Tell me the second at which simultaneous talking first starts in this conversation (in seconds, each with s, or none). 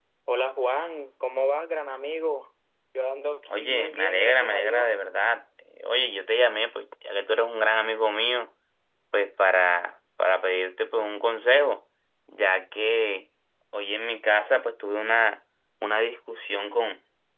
3.5 s